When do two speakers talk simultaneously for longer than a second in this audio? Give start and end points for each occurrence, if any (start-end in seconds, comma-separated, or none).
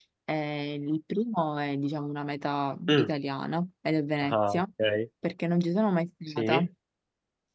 none